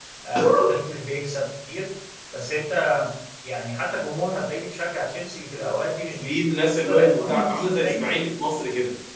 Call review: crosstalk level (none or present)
present